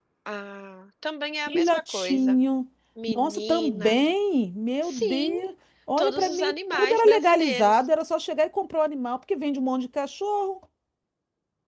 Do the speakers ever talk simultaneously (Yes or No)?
Yes